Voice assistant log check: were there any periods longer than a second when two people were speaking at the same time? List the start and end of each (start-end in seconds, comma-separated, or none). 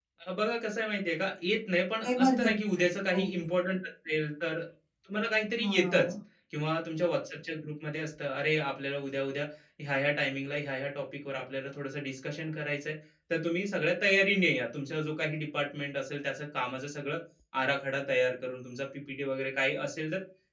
2.1-3.5